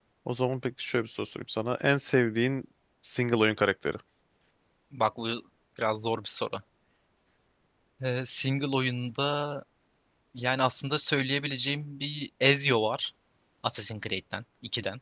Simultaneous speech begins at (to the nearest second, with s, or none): none